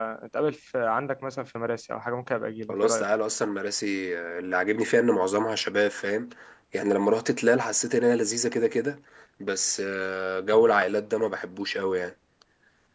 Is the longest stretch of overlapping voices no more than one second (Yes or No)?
Yes